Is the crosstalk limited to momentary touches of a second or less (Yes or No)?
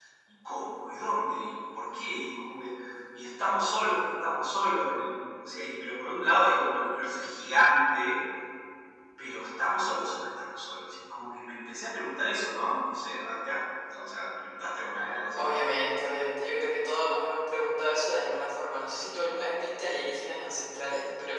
Yes